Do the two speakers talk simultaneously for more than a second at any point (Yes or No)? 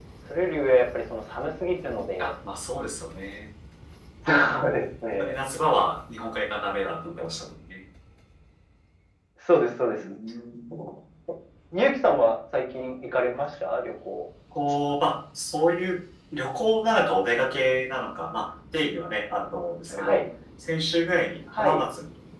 No